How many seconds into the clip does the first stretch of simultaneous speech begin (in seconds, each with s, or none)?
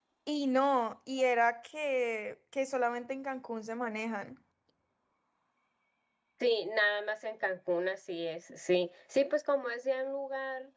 none